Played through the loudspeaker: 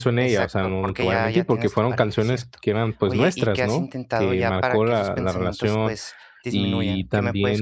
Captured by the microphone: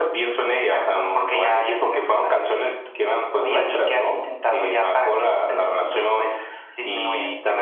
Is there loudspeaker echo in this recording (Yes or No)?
Yes